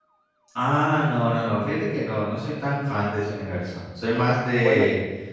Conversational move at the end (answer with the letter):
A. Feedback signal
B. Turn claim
A